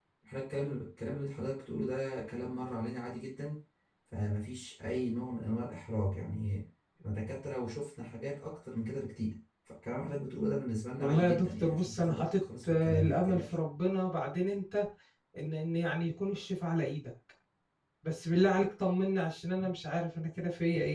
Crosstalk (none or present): present